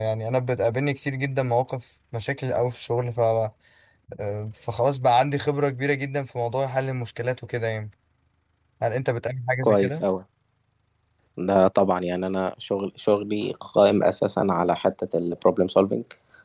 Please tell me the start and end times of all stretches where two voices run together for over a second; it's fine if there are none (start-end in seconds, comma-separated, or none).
none